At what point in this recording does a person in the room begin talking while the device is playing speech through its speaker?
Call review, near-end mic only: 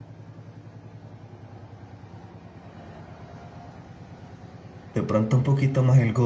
4.9 s

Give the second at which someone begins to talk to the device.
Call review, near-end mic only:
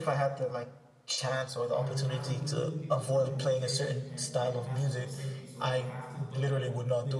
1.7 s

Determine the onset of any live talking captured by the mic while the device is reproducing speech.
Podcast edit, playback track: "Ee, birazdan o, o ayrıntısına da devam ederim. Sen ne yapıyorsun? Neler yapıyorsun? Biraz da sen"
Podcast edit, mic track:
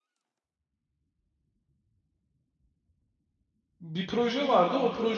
3.8 s

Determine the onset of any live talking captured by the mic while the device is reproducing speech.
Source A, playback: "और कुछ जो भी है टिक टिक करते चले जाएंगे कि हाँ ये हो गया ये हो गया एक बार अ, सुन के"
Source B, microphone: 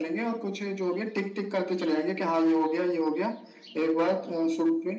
none

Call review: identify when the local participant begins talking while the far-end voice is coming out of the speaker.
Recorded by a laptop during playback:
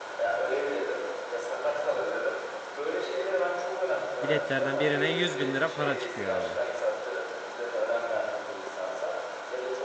4.2 s

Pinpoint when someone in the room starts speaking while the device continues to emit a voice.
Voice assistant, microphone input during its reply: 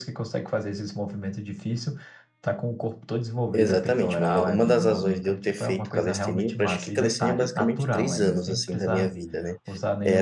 3.5 s

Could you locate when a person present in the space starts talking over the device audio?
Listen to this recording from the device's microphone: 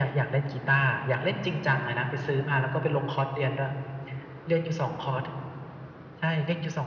none

